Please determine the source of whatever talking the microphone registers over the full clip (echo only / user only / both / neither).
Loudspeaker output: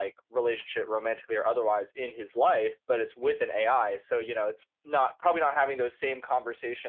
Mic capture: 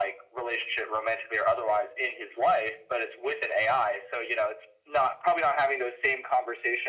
echo only